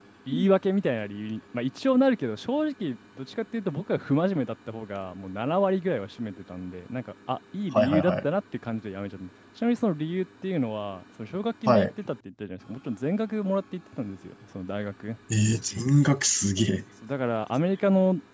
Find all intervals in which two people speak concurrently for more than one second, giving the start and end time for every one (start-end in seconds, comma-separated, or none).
none